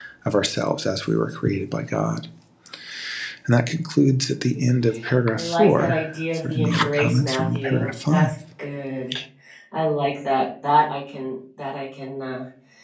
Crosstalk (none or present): present